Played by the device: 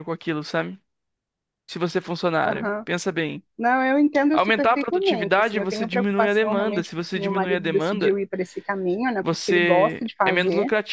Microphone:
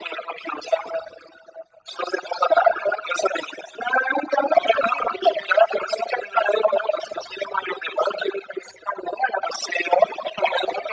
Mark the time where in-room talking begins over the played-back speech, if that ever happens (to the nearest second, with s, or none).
none